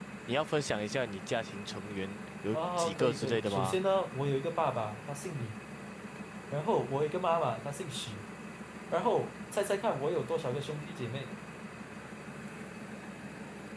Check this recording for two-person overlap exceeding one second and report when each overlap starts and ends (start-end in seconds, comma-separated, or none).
2.5-3.8